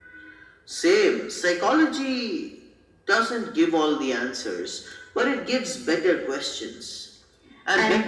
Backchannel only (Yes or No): Yes